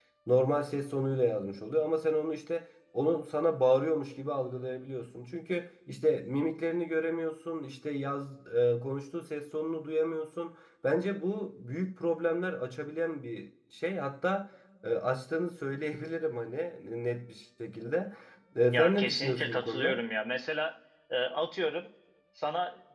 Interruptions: present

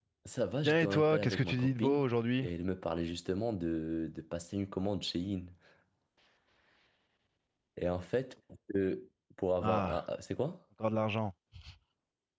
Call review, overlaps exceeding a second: present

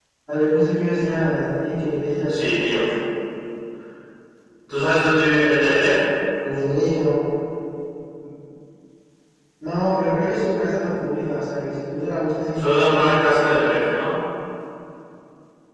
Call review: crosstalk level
present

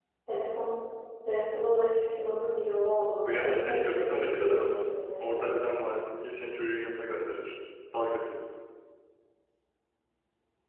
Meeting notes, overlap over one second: present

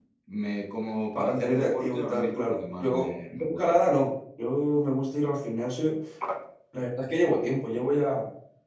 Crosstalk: present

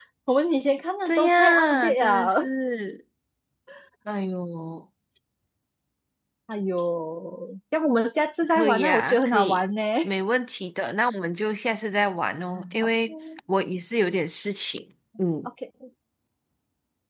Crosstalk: present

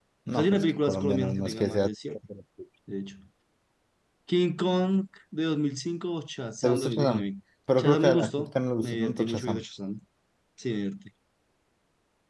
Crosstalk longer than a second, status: present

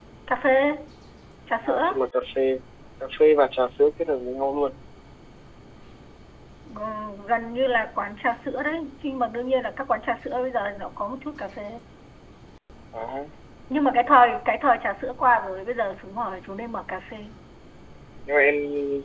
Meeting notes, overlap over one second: none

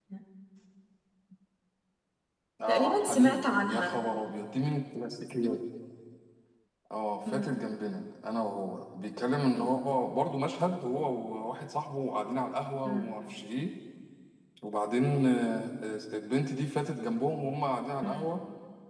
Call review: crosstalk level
present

